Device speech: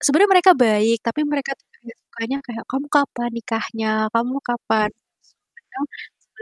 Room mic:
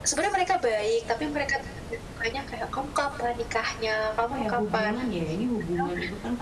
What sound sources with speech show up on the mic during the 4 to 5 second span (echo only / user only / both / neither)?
both